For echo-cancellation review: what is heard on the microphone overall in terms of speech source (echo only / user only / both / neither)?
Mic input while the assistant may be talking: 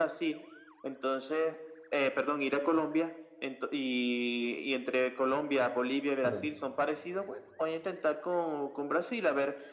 both